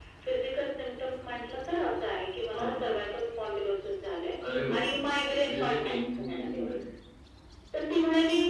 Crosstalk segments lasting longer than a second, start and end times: 5.4-6.7

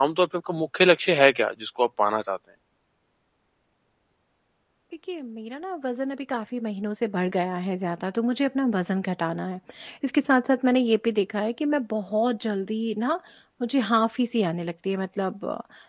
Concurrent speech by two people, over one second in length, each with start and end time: none

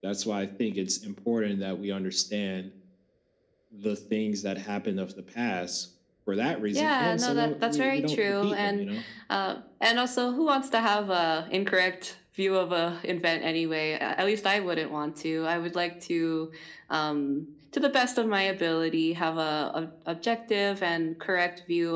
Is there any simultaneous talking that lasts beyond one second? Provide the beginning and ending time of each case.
6.7-8.8

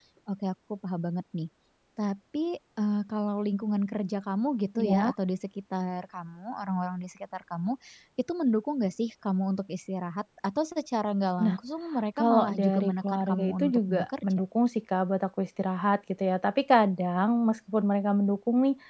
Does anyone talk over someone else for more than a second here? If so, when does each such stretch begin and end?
12.2-14.4

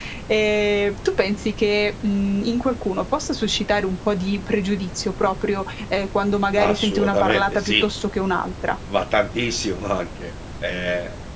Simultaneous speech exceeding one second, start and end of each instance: 6.6-7.8

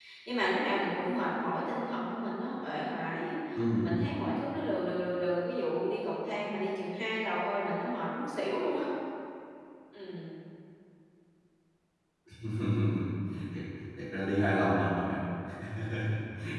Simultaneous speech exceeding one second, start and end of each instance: none

